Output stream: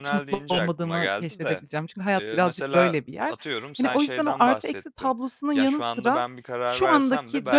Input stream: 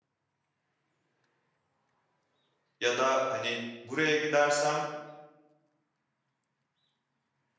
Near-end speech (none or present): present